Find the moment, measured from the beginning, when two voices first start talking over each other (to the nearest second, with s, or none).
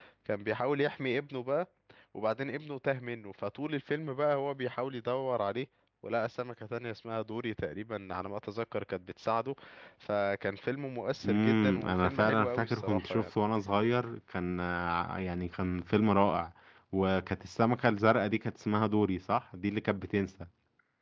11 s